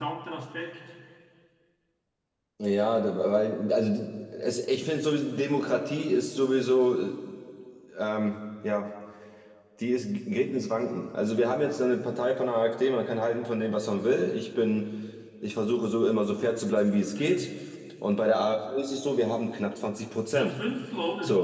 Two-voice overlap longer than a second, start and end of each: none

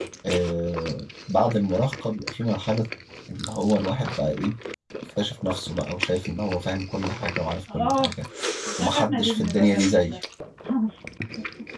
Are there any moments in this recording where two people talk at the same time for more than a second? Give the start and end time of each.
8.8-10.2

